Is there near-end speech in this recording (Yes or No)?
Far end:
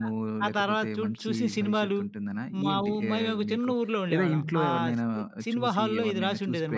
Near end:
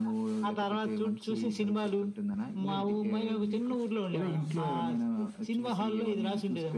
No